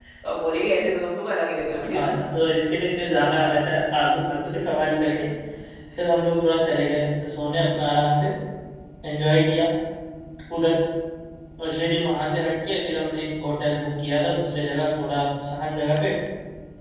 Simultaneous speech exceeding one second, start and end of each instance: none

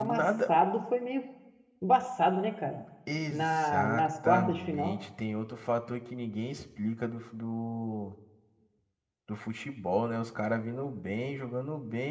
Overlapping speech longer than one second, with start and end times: 3.3-5.0

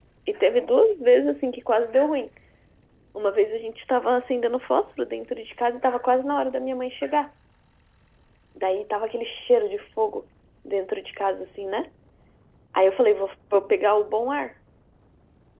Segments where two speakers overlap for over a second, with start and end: none

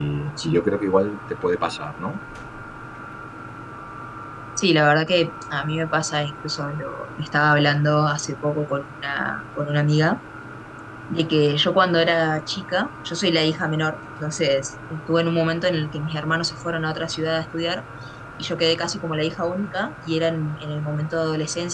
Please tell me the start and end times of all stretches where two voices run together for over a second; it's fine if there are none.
none

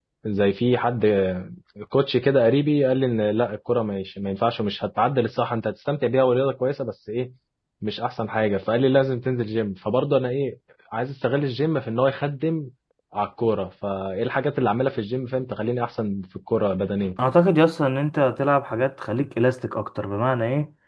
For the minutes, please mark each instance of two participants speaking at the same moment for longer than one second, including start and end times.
none

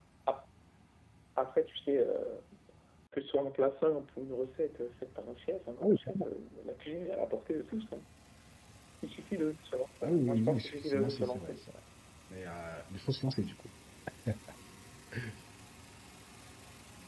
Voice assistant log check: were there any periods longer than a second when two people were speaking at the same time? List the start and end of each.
10.0-11.5

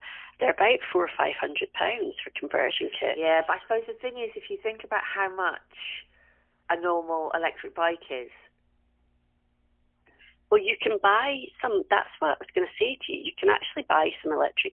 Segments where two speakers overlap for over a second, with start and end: none

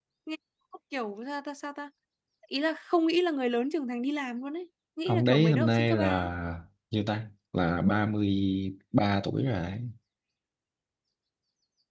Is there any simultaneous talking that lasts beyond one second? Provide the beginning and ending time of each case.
5.1-6.3

